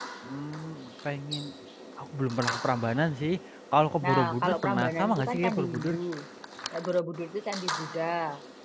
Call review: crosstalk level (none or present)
present